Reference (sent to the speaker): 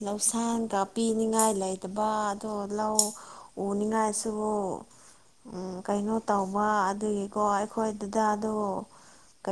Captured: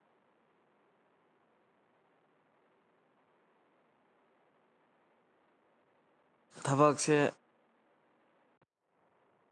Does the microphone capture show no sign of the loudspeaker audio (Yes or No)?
Yes